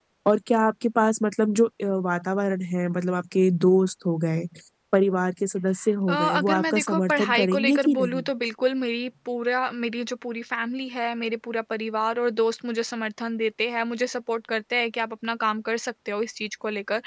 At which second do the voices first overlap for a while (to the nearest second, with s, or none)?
6 s